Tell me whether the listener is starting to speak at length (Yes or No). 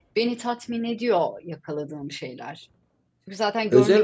Yes